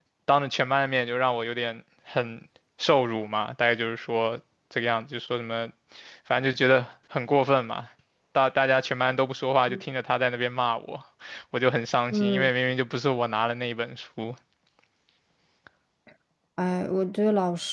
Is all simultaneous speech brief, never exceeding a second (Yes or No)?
Yes